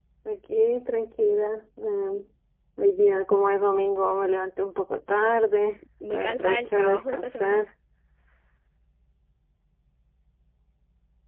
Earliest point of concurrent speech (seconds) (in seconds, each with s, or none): 6.0 s